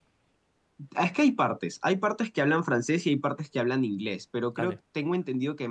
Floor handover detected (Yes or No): No